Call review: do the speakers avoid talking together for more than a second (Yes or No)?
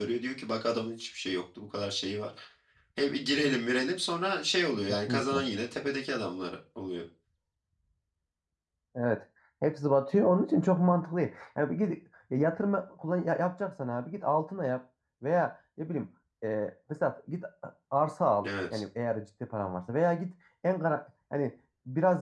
Yes